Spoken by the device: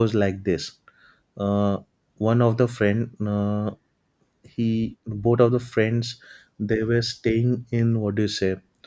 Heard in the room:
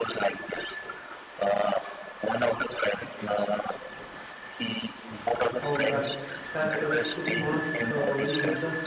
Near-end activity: present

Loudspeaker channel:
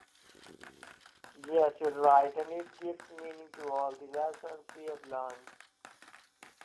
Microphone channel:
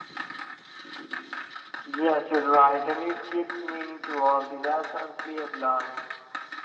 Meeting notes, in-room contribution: none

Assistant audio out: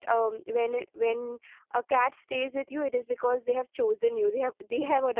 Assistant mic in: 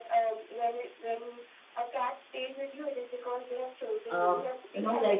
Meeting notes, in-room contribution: present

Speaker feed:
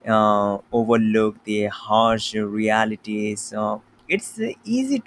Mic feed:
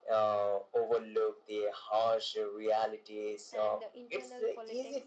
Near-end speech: present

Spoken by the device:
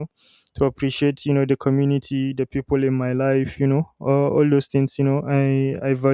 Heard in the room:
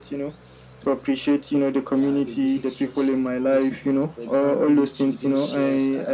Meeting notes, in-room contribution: present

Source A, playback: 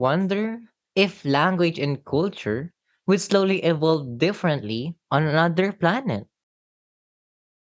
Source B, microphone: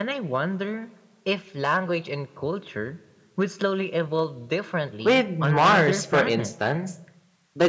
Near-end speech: present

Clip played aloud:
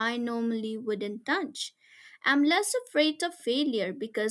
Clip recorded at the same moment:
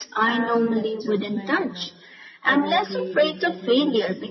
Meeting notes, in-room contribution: present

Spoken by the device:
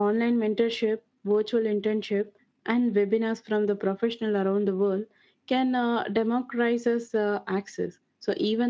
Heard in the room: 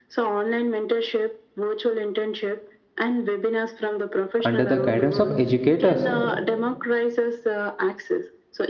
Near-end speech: present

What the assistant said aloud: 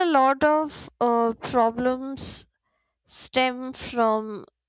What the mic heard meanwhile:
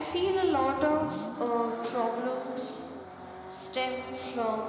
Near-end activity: none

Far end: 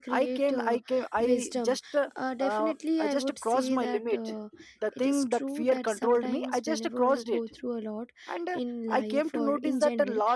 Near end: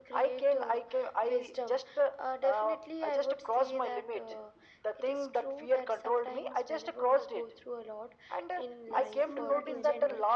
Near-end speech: present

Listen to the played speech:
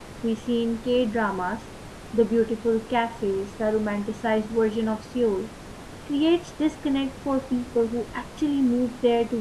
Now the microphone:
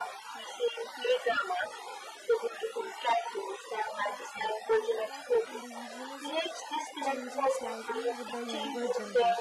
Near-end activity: present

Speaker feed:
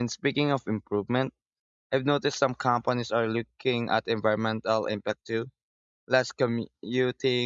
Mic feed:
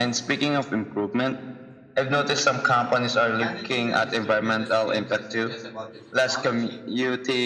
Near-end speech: present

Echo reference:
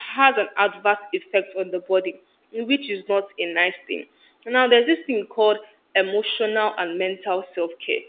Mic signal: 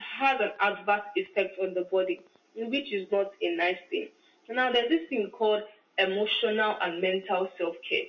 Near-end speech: none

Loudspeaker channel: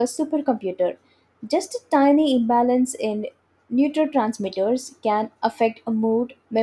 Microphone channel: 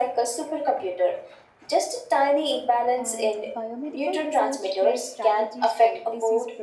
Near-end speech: present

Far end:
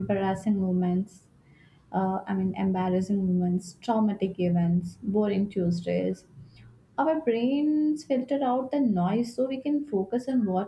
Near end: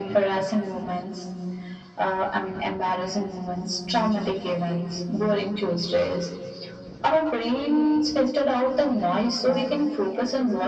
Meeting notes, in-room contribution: present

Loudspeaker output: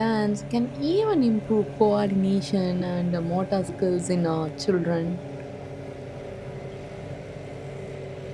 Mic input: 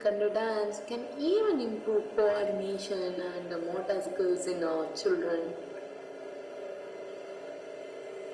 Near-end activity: none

